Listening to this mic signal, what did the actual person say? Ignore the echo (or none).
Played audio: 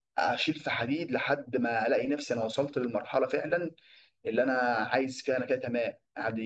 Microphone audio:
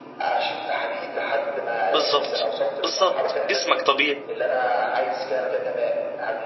بالظبط بالظبط جسمك طبيعي